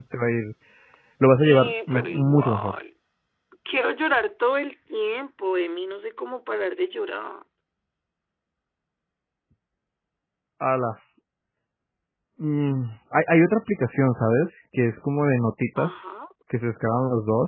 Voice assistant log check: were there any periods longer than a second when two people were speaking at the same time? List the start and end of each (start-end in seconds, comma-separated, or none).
1.4-2.7